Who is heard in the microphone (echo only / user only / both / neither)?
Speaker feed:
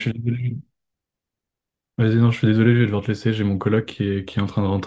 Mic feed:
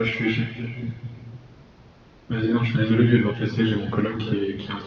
echo only